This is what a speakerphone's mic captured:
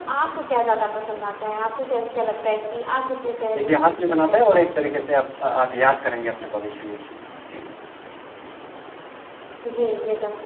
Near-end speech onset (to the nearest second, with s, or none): 4 s